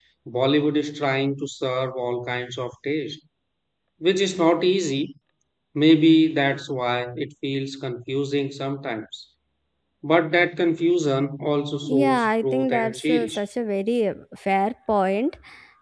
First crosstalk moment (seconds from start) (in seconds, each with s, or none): 11.8 s